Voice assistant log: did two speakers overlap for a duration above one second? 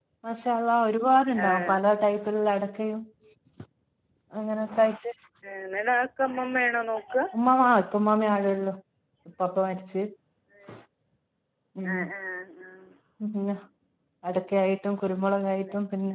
No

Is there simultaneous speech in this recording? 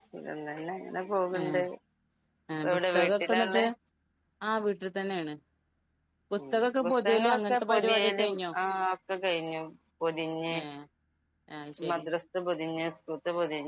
Yes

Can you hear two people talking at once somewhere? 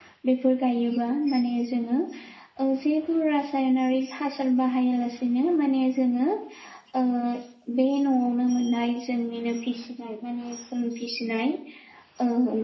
No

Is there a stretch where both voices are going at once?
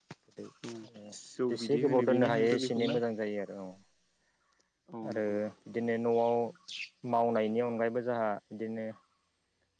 Yes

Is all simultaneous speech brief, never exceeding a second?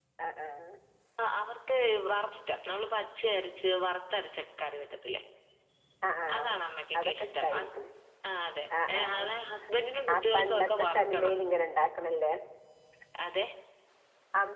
No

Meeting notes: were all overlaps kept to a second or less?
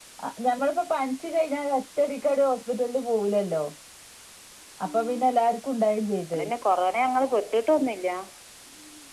Yes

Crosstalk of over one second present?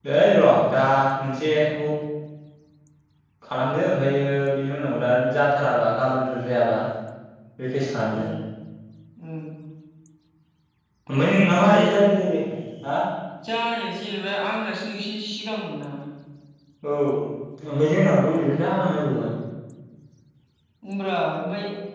No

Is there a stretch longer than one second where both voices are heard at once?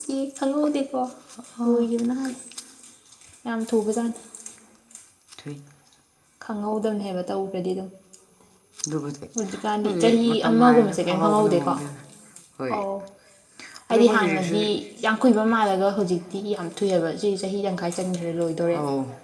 Yes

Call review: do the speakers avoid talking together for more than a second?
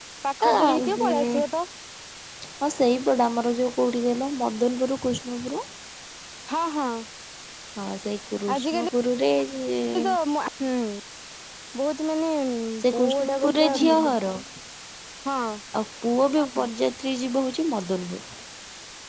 No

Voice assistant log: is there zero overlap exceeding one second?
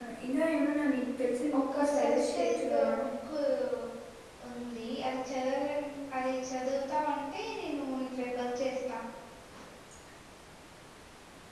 No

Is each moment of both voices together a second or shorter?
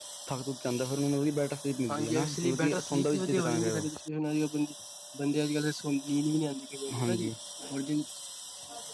No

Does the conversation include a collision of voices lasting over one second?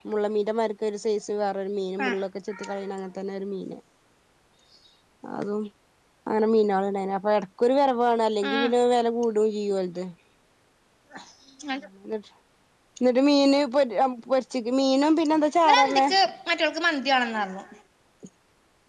No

